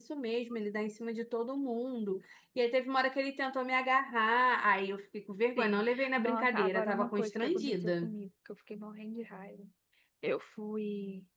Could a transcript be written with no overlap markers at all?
No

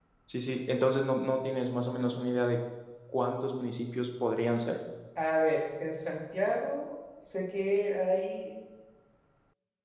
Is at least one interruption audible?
No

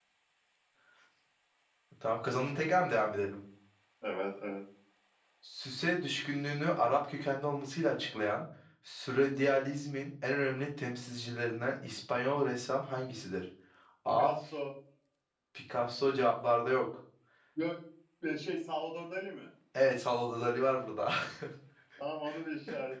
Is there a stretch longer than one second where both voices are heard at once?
No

